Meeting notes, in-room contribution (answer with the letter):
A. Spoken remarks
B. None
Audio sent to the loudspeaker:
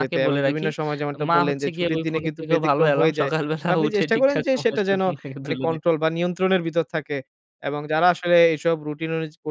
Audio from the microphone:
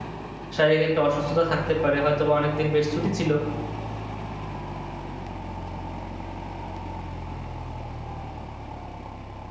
A